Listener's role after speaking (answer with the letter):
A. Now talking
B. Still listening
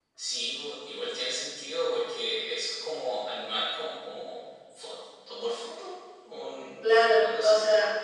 A